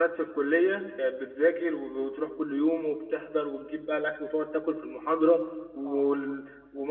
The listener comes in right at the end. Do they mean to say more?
No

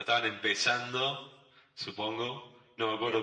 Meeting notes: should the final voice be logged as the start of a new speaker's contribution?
No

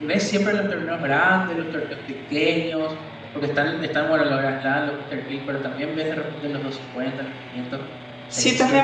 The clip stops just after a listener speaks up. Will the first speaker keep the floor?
No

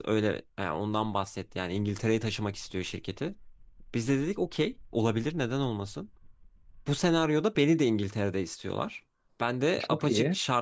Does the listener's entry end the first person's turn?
No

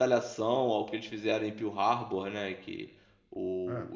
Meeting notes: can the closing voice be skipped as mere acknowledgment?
Yes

